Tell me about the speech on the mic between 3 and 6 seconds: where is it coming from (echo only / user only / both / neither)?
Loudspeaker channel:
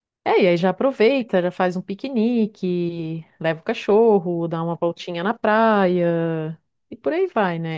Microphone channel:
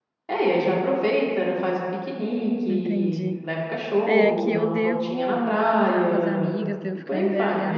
both